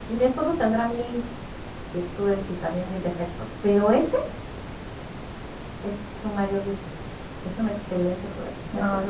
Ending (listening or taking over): listening